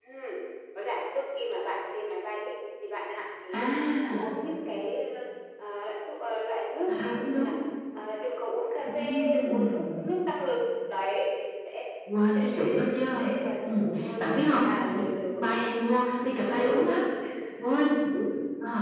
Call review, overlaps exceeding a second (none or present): present